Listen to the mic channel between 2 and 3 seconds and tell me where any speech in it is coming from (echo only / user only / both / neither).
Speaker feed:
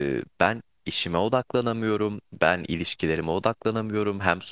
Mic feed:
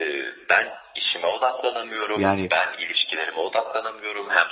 both